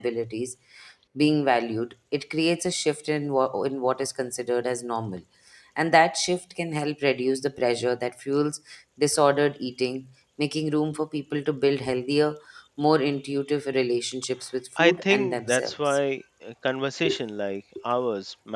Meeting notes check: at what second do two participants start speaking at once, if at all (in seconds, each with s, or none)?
14.8 s